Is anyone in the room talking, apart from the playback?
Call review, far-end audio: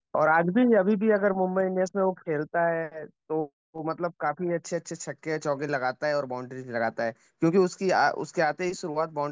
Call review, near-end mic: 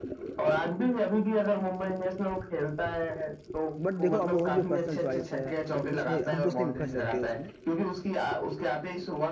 Yes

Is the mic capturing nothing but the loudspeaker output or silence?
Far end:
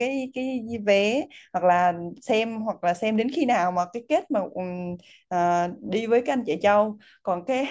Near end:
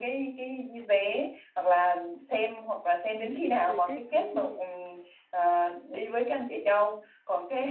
No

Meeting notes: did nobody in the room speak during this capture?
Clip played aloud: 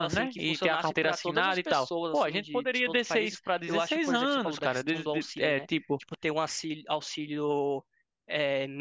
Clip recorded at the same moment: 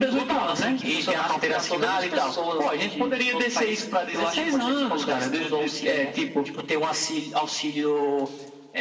Yes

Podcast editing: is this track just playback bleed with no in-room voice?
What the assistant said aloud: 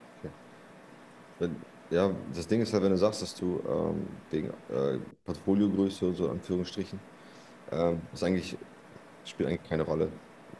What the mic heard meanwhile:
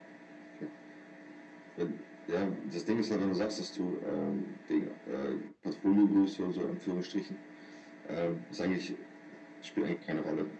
Yes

